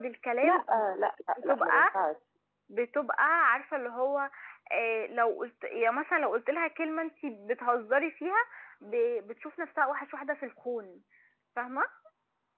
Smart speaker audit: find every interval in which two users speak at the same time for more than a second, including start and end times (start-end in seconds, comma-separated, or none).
none